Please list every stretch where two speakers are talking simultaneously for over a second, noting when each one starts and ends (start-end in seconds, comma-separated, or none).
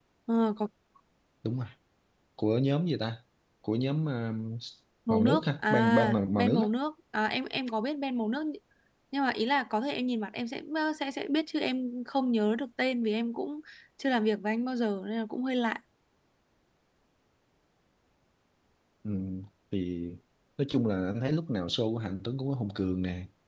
5.1-6.6